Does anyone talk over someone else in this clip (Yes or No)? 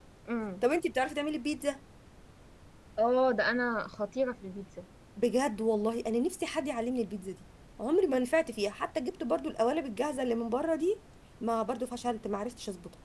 No